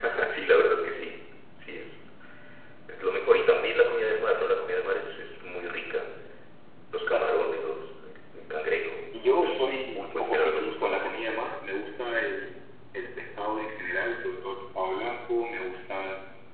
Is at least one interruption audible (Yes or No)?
Yes